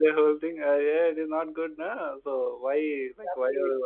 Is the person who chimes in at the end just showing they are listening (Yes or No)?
Yes